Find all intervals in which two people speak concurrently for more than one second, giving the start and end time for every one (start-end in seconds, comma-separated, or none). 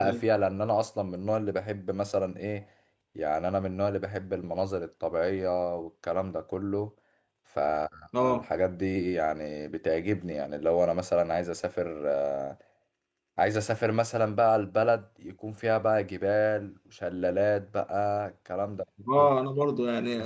none